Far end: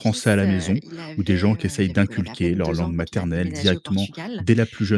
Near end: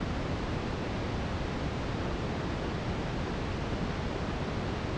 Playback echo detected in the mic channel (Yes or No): No